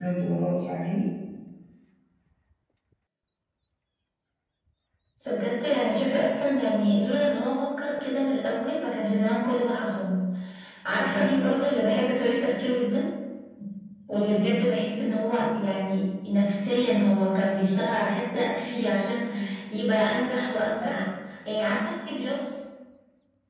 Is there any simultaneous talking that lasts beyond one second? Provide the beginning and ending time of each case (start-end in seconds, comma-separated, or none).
none